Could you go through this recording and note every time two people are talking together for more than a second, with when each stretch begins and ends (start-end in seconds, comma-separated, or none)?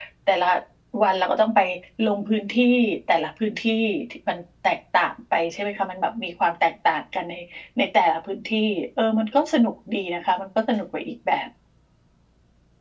none